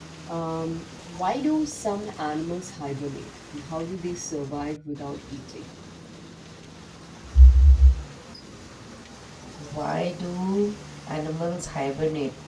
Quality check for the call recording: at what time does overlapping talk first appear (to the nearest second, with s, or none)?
none